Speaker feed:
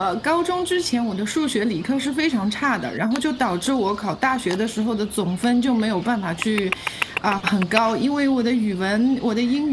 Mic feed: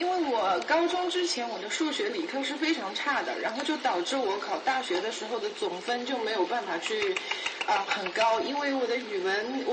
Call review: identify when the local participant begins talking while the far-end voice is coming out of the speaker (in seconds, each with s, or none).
none